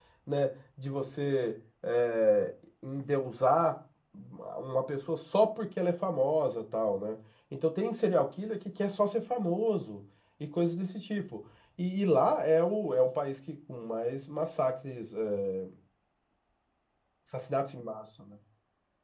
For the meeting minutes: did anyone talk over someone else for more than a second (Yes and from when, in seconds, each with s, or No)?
No